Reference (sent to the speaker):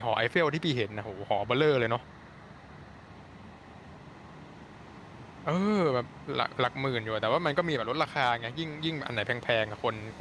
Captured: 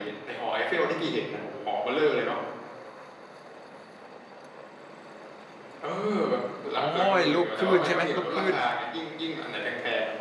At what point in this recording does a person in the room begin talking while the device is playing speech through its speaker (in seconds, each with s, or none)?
6.7 s